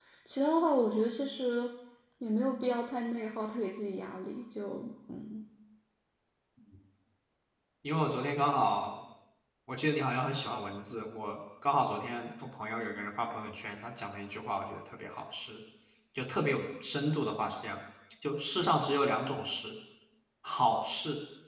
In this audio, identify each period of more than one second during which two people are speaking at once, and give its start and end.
none

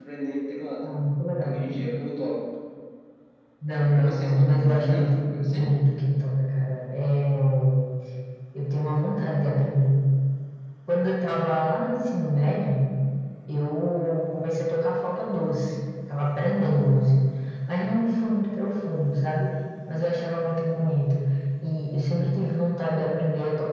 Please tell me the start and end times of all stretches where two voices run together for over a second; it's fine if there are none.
3.7-5.7

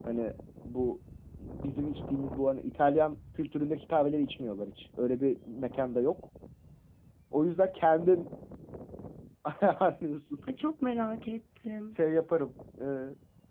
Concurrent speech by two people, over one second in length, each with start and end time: none

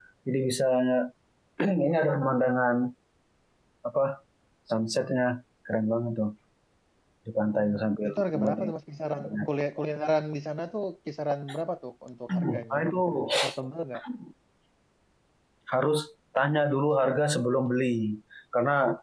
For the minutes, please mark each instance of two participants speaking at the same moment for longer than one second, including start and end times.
7.4-8.7

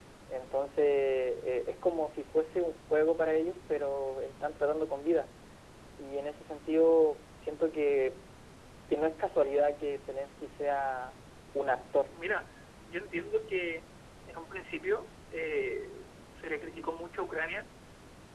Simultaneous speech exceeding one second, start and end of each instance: none

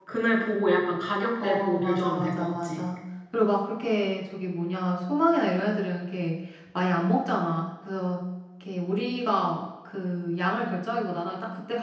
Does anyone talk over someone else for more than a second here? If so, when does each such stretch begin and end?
1.4-2.8

